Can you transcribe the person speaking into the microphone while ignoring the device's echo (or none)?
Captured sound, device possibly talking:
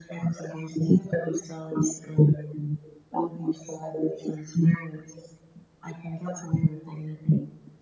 none